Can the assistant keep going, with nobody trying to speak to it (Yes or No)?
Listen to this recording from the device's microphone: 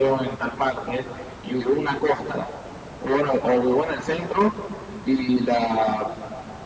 Yes